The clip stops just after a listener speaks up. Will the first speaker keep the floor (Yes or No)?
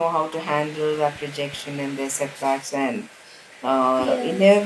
Yes